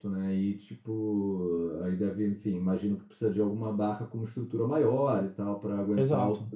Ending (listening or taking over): taking over